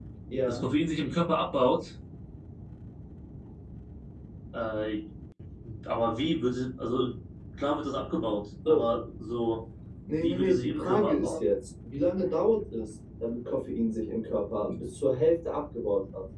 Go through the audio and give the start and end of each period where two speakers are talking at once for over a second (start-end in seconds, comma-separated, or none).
10.1-11.4